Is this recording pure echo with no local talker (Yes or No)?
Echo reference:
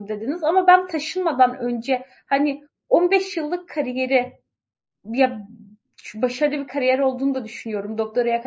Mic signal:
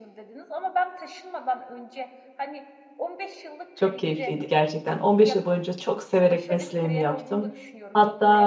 No